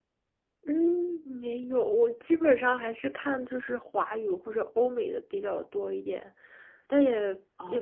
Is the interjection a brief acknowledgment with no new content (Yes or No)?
Yes